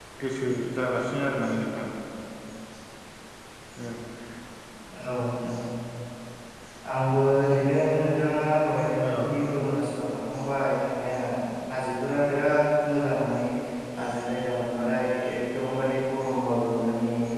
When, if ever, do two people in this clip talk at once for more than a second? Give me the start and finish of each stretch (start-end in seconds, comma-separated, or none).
none